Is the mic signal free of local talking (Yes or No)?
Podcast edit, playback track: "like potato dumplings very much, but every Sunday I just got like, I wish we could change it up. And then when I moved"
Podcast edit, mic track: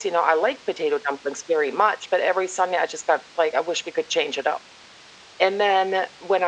Yes